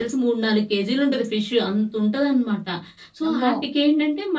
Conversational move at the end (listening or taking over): listening